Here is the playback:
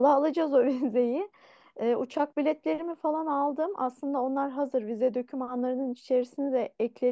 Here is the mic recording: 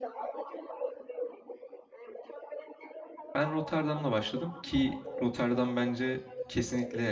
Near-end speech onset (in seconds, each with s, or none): 3.3 s